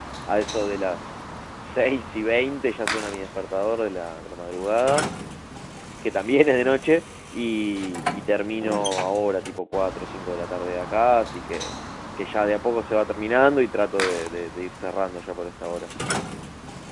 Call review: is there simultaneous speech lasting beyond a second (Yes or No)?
No